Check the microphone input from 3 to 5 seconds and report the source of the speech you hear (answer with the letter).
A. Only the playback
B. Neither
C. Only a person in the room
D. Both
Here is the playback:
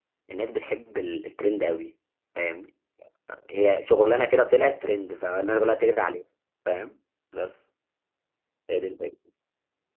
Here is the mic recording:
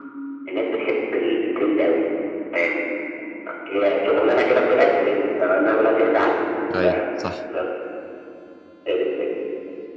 A